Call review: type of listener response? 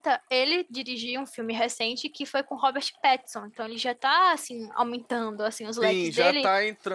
taking over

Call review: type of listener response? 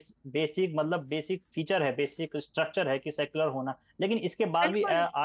listening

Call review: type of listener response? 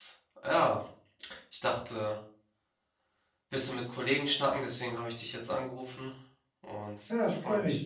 taking over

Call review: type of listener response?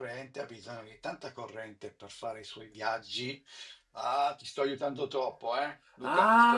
taking over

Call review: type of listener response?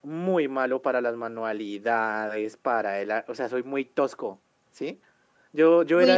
taking over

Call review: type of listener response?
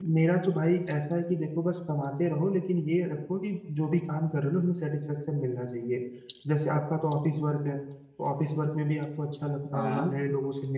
listening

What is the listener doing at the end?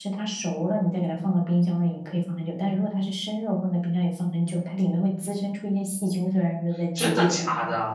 taking over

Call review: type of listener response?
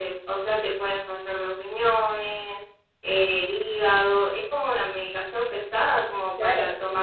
taking over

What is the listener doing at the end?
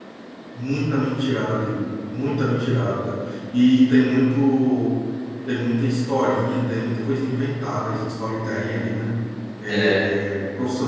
listening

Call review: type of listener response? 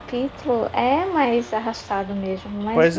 taking over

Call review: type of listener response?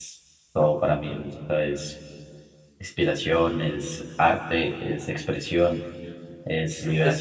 taking over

